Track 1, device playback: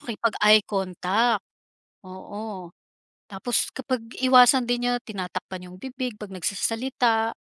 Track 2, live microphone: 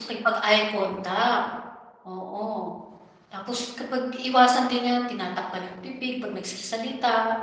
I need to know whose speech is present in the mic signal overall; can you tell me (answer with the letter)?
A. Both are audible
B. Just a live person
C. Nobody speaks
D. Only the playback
D